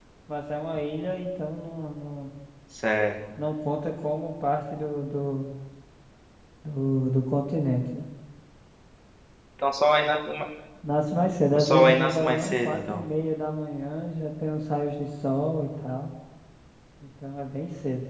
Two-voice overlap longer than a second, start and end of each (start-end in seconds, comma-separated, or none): 11.6-13.0